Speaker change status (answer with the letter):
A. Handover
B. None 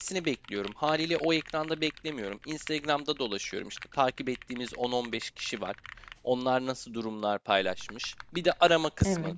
B